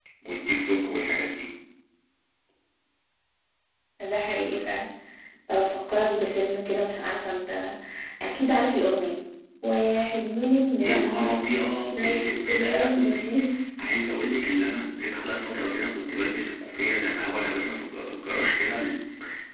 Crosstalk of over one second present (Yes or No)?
Yes